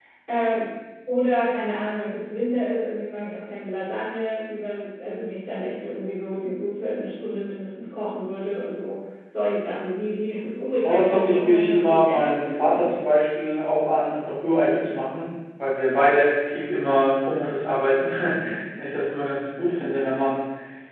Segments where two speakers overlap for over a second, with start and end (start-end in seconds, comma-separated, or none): 10.8-12.8